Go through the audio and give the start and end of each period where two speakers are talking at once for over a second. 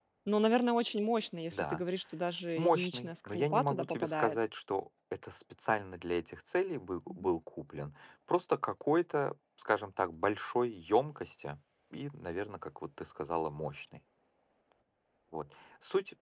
2.6-4.4

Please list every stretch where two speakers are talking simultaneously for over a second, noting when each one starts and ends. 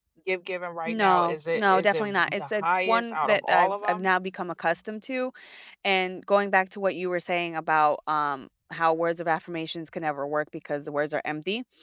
0.9-4.1

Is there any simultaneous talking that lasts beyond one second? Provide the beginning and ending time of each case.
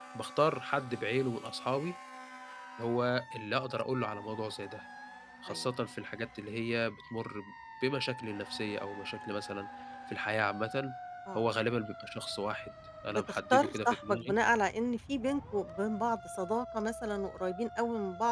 13.1-14.3

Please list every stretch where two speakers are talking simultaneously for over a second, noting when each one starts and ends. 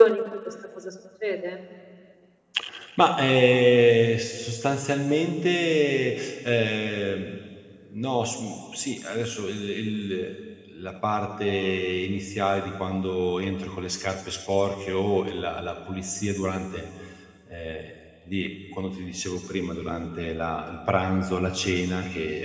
none

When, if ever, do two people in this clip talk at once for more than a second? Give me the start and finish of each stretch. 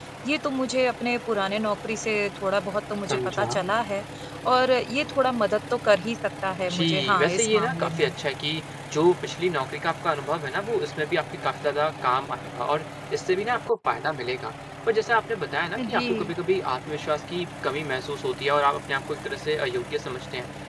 6.7-8.1

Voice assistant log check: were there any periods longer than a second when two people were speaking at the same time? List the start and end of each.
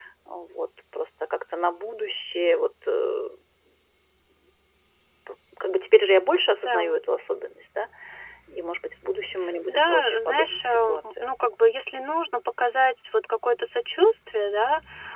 9.7-11.3

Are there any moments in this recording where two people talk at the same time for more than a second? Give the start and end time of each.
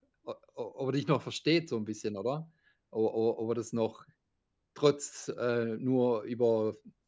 none

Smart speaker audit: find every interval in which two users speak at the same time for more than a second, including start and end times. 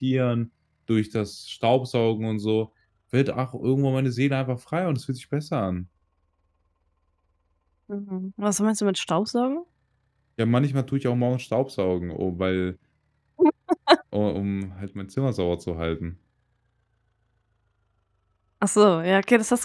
none

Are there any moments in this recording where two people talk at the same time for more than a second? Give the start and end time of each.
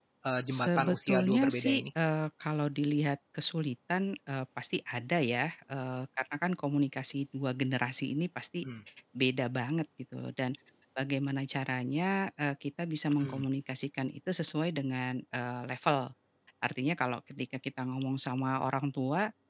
0.5-1.8

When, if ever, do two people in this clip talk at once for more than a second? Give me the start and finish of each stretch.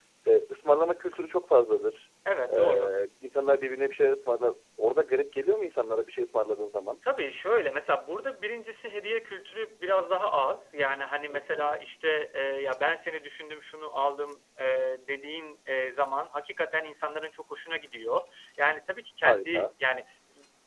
none

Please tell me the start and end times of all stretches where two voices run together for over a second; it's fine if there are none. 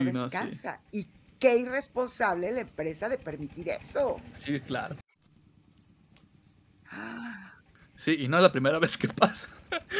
none

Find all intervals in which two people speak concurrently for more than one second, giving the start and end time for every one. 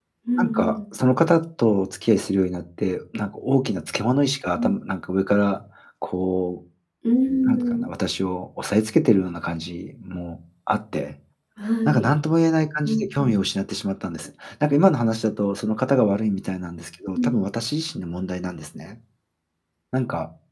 none

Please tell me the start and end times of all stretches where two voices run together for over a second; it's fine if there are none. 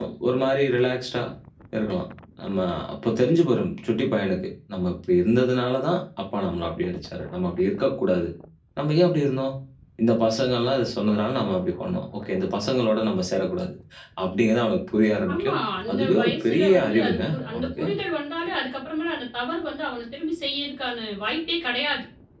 15.3-17.8

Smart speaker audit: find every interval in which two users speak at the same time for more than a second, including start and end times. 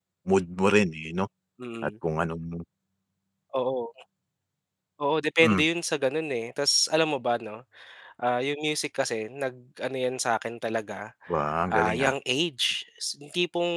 none

